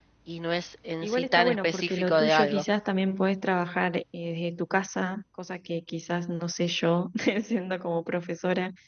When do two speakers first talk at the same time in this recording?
1.0 s

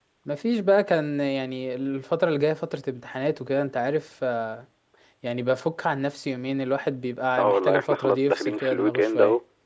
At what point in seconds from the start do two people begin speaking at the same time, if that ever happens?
7.4 s

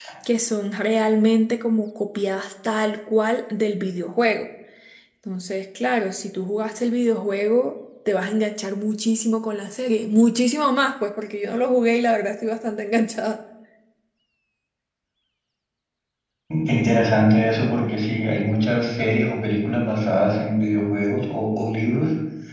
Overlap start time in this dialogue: none

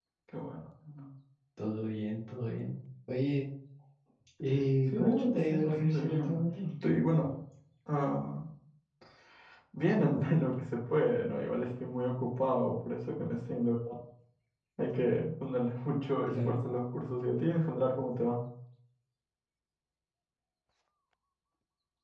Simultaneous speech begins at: 4.9 s

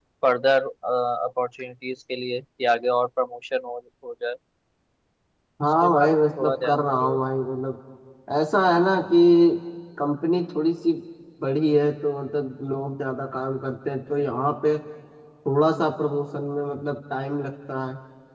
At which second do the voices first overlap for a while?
5.6 s

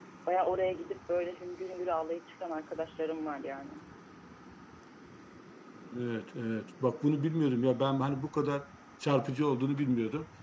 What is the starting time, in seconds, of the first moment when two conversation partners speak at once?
none

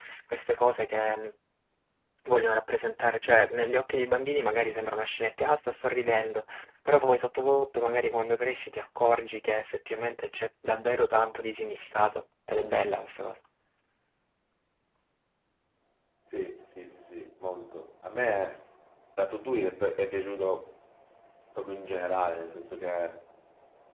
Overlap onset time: none

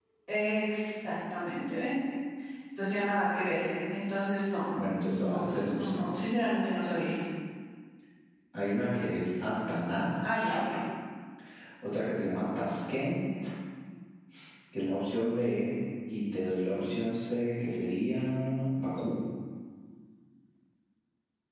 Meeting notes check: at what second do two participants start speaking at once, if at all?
5.0 s

